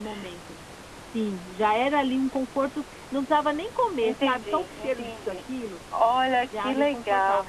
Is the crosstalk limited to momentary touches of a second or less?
No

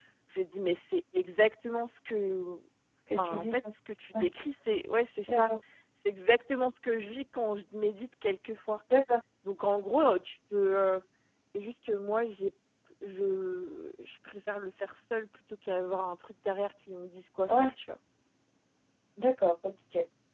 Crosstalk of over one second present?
No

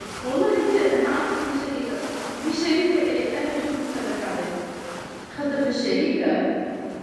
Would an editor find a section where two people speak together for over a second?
No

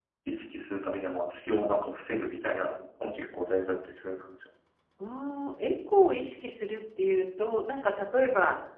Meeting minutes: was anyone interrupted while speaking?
No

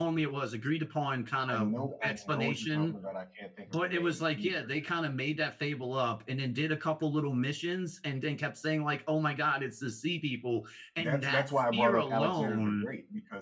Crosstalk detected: Yes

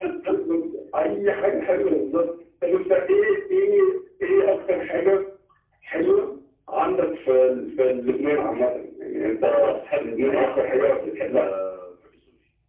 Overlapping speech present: Yes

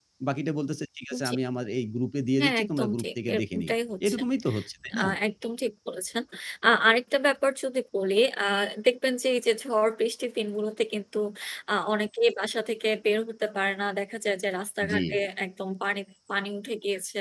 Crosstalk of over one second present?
Yes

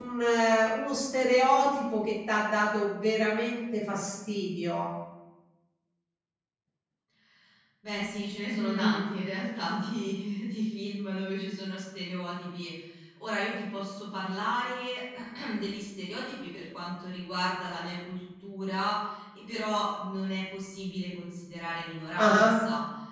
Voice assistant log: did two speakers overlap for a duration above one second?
No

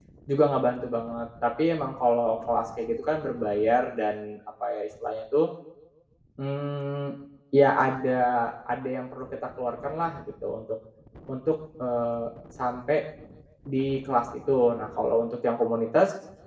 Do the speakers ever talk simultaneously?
No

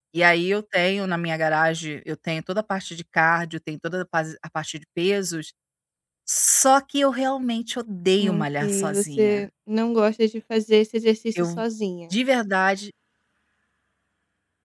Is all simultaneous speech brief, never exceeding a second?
No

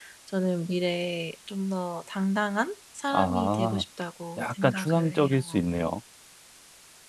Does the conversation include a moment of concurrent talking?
Yes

